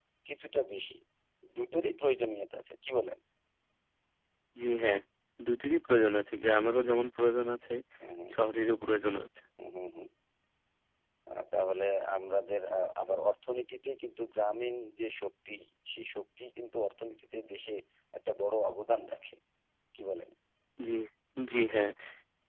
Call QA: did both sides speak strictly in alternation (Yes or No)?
Yes